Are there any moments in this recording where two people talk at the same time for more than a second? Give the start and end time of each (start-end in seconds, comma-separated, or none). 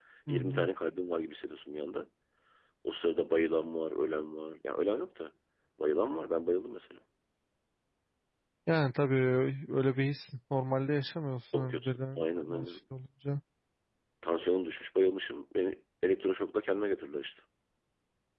11.5-12.8